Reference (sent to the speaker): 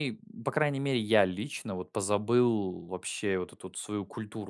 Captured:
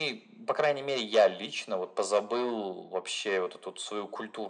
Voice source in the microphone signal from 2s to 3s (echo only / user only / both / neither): echo only